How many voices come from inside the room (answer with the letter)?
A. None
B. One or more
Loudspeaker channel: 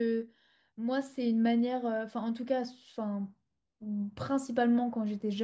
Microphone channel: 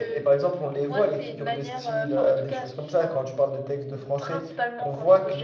B